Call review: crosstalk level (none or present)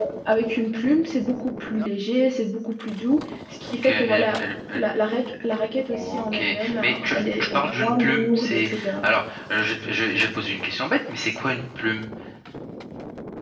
present